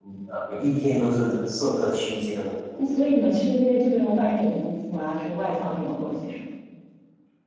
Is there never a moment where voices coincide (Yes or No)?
Yes